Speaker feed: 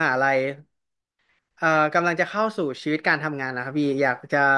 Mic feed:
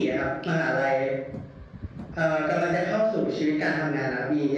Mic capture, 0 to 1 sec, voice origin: echo only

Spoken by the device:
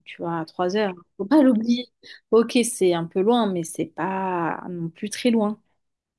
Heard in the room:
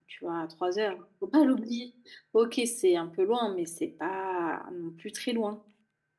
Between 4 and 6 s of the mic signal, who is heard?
echo only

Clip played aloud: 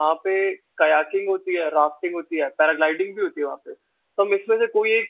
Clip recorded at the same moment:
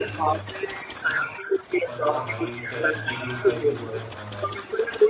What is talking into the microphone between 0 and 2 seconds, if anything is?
both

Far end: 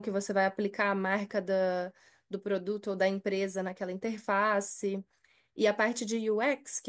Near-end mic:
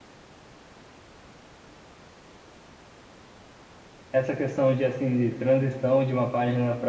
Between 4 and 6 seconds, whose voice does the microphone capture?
user only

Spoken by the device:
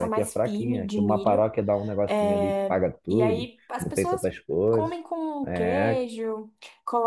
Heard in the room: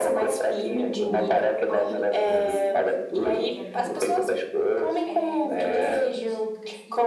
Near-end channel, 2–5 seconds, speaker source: both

